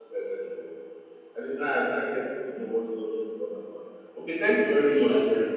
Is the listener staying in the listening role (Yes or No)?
Yes